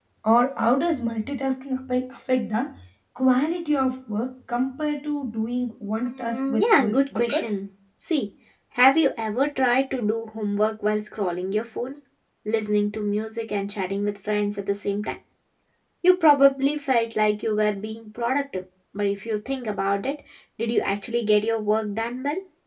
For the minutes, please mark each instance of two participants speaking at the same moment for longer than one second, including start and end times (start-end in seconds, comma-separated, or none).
6.2-7.6